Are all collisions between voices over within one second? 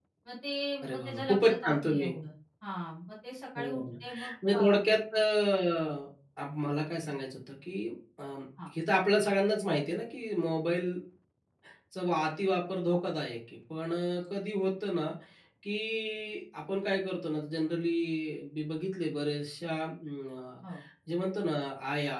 No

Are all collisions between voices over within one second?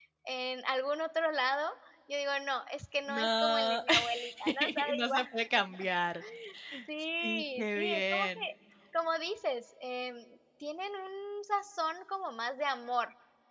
No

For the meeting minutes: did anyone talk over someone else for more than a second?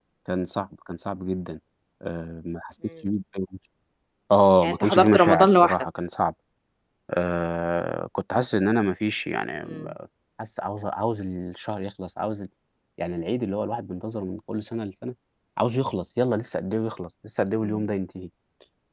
Yes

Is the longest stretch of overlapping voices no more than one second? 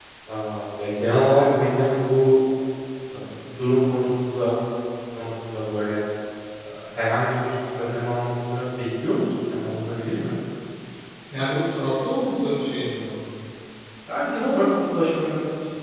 Yes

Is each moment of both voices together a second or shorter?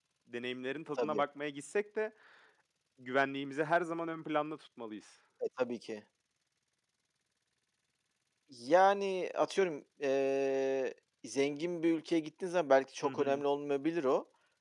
Yes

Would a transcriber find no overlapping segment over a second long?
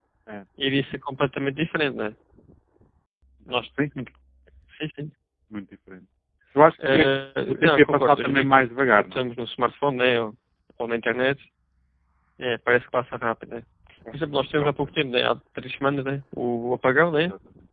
No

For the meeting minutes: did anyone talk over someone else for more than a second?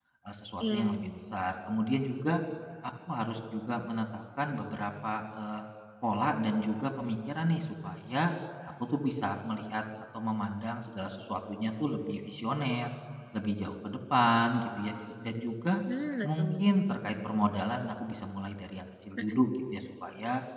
No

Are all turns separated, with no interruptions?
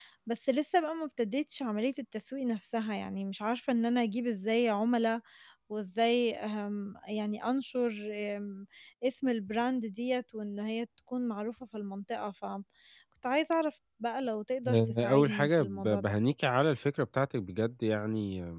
No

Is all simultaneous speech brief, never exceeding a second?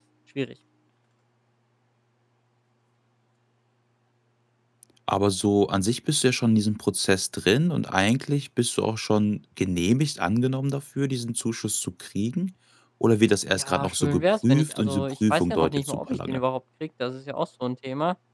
No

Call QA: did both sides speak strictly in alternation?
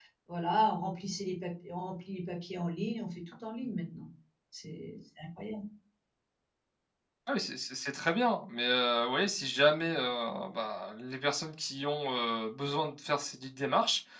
Yes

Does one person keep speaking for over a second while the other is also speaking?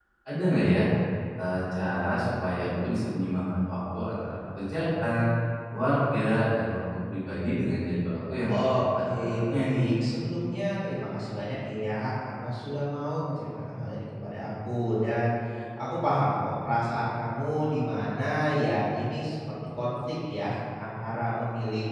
Yes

